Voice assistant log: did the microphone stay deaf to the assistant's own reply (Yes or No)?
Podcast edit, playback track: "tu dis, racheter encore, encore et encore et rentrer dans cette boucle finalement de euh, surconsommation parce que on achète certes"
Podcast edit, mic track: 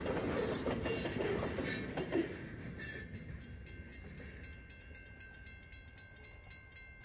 Yes